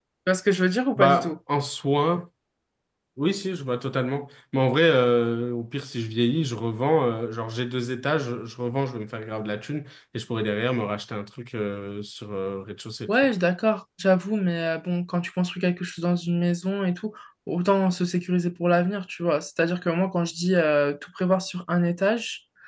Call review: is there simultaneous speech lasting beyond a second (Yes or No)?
No